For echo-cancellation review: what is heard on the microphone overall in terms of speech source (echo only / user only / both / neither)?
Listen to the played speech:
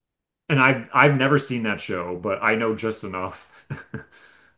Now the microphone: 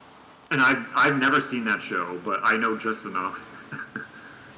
echo only